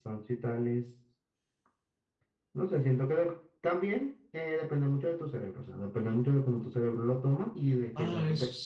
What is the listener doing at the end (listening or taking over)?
taking over